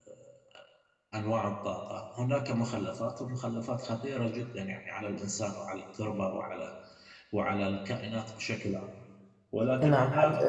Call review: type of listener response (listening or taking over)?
taking over